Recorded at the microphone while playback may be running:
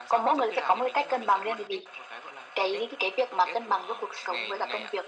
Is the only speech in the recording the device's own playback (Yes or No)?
Yes